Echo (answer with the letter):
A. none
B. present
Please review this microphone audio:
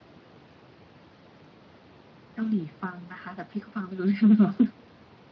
A